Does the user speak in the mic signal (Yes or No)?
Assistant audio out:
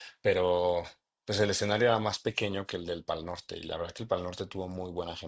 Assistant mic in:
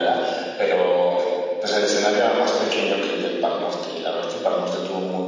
No